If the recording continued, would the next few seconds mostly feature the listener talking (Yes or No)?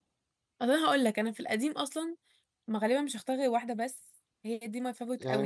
Yes